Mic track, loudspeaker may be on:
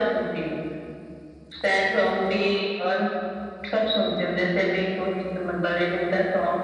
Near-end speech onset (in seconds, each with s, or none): none